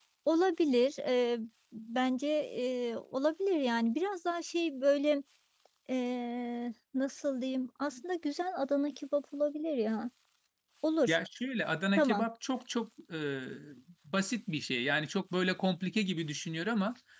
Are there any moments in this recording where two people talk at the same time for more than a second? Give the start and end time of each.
none

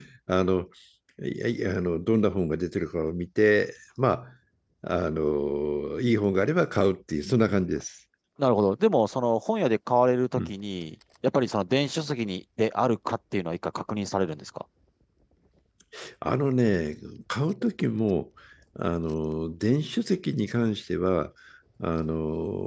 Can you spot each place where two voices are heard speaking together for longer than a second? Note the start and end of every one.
none

